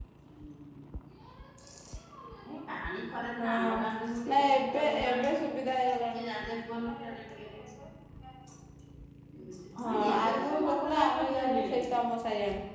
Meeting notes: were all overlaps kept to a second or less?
No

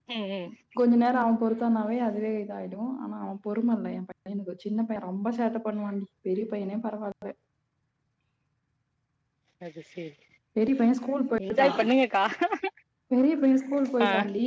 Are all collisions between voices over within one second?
Yes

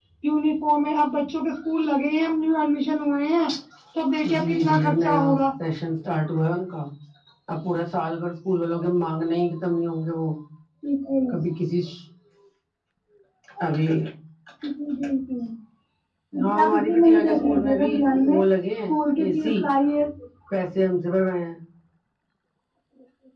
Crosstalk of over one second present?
Yes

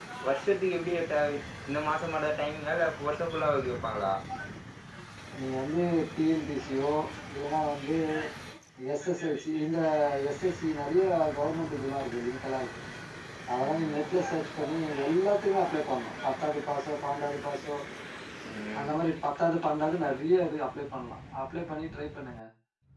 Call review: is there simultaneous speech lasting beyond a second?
No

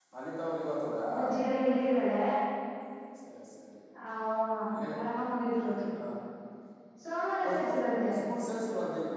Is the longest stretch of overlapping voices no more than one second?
Yes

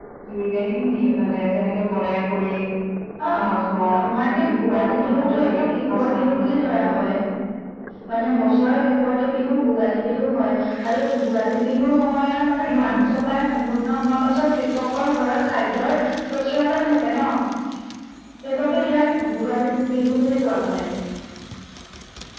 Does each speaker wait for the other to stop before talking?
No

